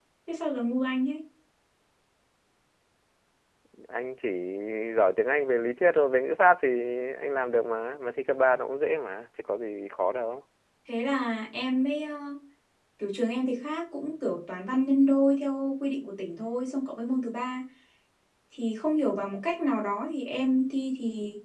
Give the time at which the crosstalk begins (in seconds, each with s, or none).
none